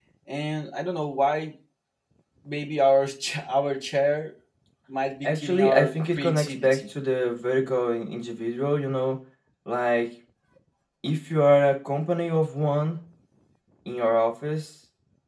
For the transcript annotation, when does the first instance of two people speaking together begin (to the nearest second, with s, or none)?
5 s